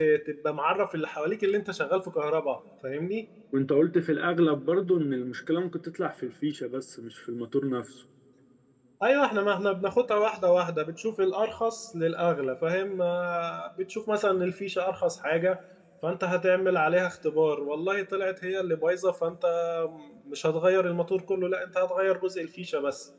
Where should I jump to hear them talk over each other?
none

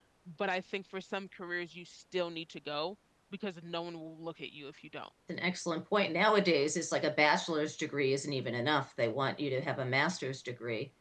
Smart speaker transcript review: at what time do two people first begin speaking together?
none

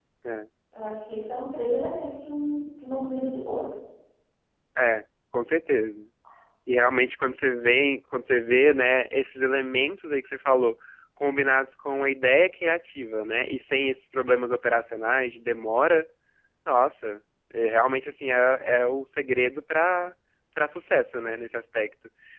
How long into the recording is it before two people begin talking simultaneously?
none

